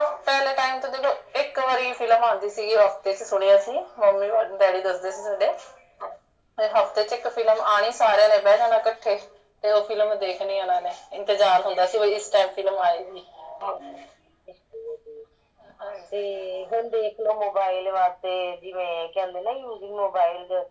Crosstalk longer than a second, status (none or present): none